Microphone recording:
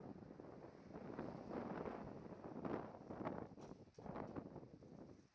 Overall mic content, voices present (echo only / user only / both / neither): neither